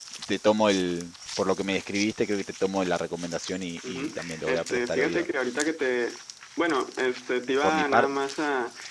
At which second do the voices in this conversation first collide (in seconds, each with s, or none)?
3.9 s